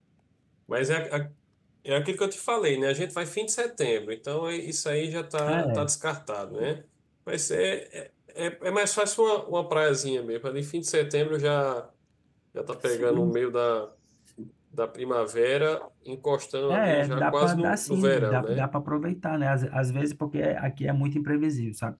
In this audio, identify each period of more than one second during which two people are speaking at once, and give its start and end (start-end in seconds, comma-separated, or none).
16.7-18.7